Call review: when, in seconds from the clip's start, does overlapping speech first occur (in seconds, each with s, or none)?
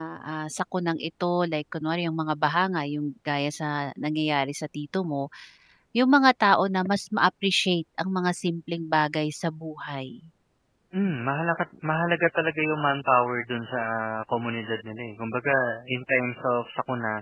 none